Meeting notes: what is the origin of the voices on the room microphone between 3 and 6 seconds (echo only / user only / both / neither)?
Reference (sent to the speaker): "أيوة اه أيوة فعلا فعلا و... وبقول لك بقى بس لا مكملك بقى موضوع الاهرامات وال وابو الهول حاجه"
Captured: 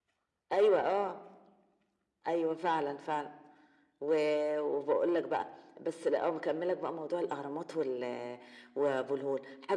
echo only